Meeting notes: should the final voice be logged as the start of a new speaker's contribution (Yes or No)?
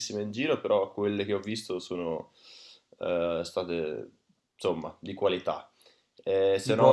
No